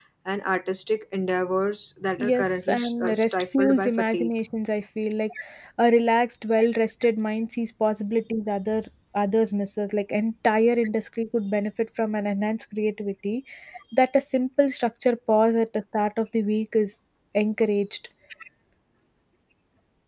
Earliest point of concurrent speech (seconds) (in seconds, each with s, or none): 2.1 s